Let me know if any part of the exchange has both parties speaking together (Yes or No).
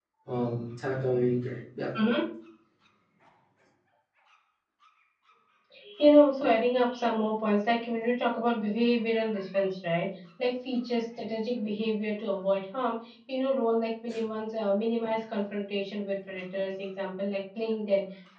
No